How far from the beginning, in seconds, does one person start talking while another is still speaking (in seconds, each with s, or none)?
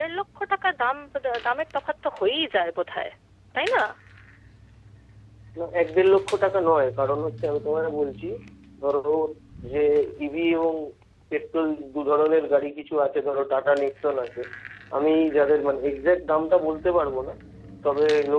none